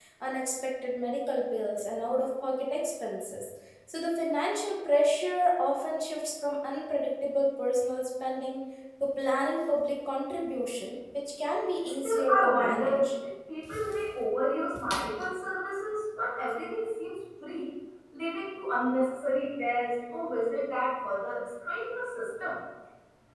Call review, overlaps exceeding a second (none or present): present